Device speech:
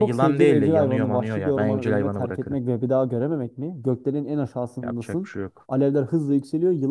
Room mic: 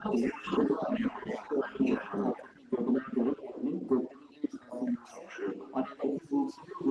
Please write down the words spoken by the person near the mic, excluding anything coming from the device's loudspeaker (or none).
none